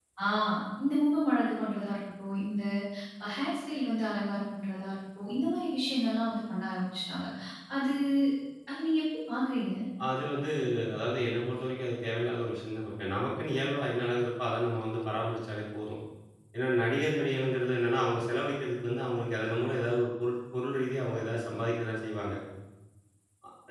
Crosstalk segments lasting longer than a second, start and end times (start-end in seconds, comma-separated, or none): none